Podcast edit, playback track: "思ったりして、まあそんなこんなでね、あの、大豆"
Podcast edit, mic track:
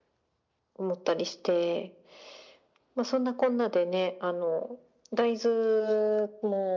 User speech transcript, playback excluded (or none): none